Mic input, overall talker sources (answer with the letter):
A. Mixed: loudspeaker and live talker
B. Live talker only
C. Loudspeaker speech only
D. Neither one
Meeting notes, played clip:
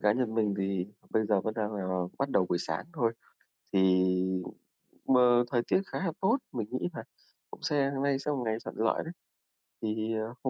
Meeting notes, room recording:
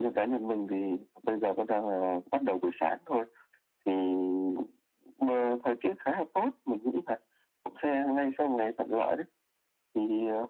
C